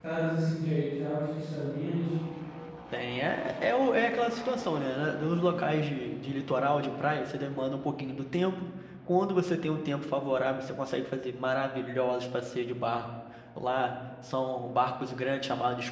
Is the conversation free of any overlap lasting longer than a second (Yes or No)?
Yes